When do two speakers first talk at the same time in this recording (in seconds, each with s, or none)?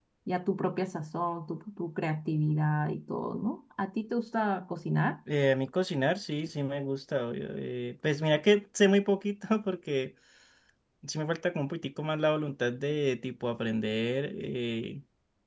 none